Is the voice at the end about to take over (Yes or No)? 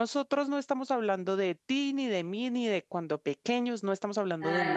No